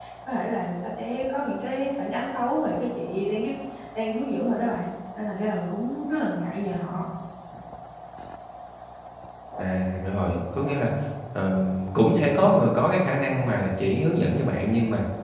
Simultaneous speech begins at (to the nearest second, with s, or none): none